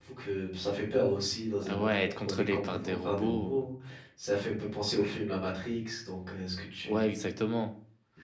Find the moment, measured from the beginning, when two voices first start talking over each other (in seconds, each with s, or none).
1.6 s